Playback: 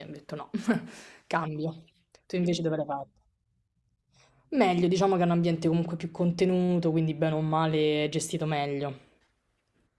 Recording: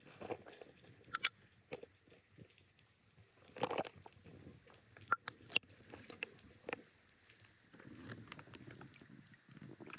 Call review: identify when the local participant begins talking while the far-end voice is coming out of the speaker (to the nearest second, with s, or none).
none